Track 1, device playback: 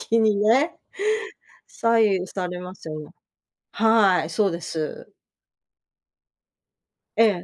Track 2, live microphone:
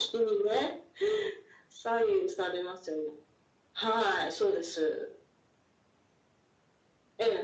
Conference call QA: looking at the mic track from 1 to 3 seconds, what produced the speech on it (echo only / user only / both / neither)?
echo only